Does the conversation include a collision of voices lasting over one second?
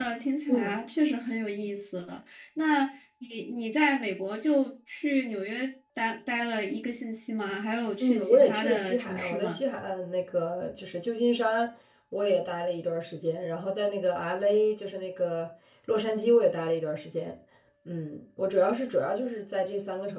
Yes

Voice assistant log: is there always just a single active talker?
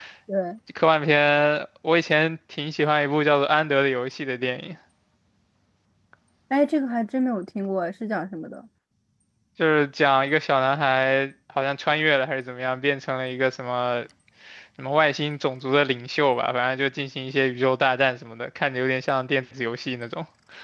Yes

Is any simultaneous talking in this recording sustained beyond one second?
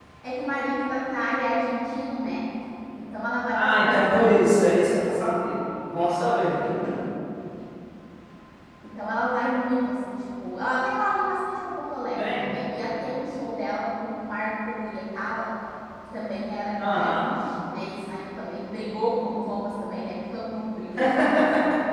Yes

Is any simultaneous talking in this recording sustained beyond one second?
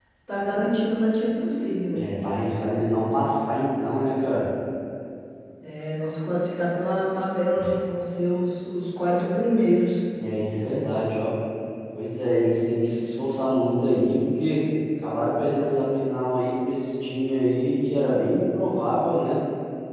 No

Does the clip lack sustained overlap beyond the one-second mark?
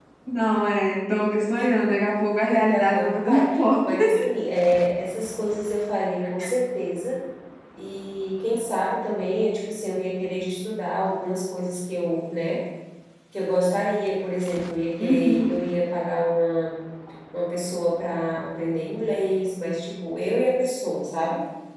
No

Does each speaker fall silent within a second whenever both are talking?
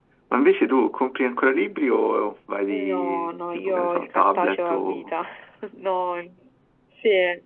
No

